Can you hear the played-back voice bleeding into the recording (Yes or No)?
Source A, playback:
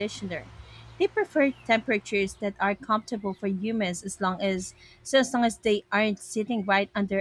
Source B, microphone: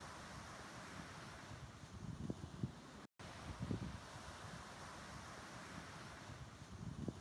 No